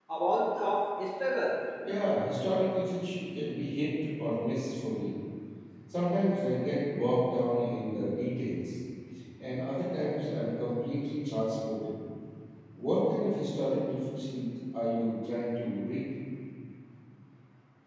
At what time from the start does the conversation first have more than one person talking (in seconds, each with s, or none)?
none